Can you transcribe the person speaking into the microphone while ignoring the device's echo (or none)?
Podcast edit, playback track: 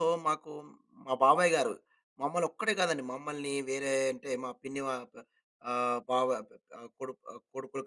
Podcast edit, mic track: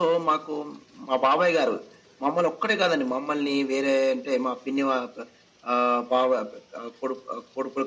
none